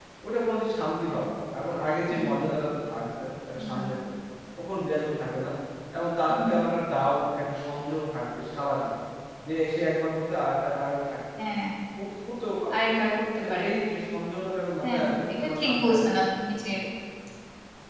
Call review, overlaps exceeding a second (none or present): present